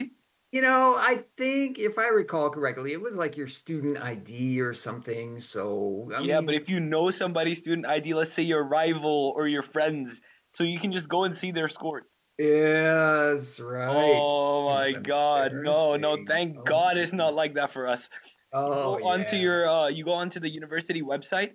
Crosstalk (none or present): present